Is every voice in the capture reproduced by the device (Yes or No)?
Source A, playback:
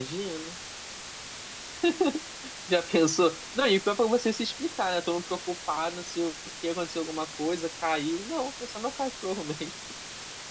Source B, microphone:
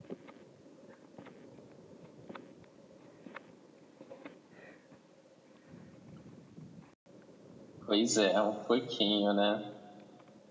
No